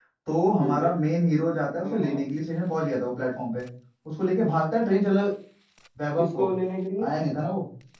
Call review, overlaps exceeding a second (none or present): none